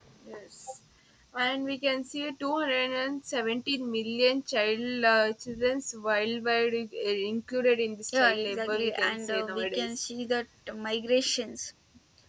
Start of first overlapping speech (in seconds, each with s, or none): 8.1 s